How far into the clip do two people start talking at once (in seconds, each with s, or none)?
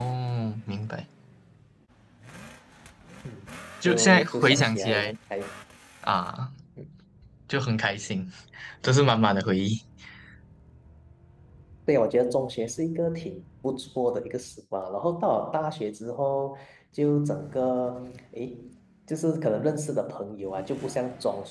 3.9 s